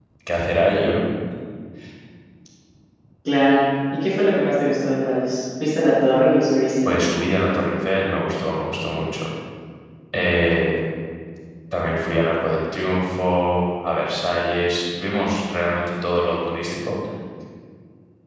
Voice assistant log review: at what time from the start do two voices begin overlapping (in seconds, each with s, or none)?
none